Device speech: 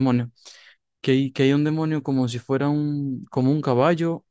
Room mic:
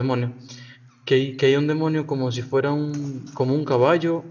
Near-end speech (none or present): none